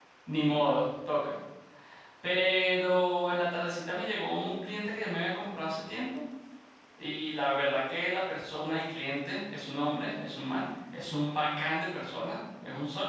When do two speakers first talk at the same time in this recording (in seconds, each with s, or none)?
none